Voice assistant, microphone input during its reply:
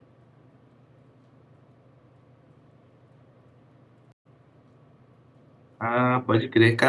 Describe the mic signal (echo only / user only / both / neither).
user only